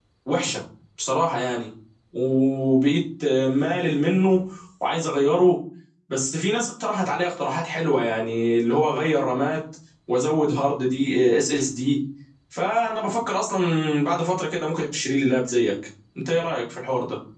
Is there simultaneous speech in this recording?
No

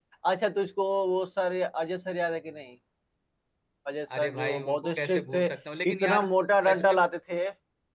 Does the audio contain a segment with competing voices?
Yes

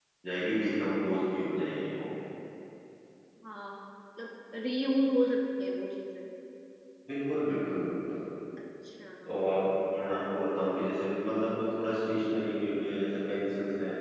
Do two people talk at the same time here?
No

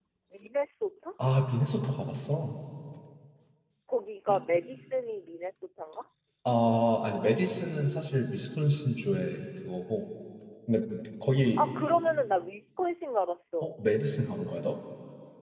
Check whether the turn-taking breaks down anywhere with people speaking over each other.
No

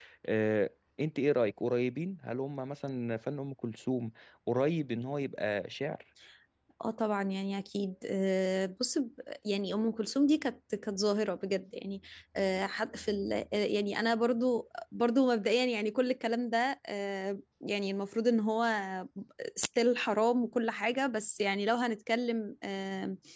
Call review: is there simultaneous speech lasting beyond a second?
No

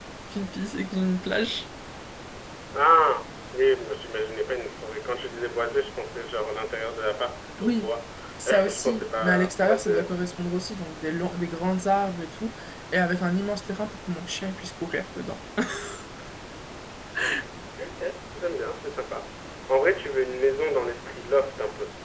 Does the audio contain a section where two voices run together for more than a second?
Yes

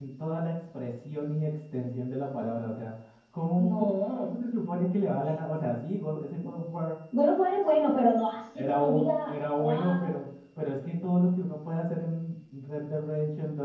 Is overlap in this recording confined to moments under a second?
No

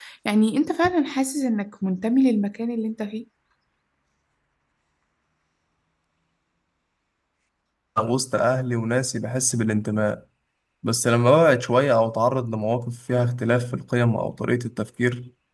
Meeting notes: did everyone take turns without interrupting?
Yes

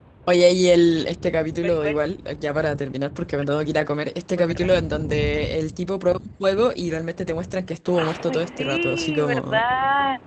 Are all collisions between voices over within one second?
No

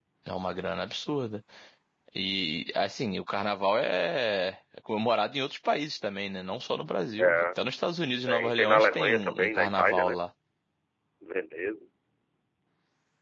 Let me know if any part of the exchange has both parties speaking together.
Yes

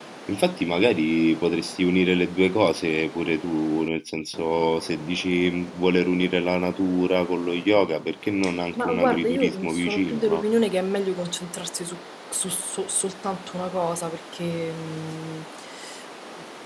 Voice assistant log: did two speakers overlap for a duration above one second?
Yes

